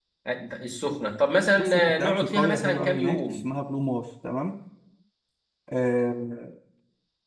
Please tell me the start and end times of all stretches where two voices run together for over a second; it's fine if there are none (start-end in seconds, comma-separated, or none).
1.6-3.2